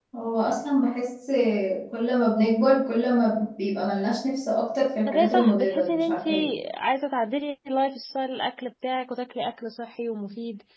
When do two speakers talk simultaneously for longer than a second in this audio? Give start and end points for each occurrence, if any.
5.1-6.3

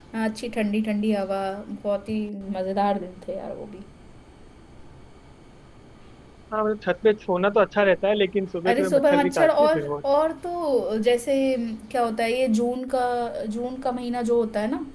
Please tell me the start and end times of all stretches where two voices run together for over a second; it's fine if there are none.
8.7-9.9

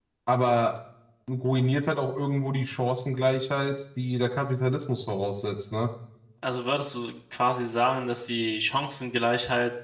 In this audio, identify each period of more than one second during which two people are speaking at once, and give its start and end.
none

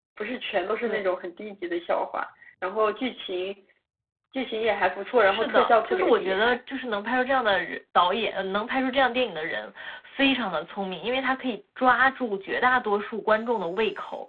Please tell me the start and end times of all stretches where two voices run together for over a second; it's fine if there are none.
5.2-6.6

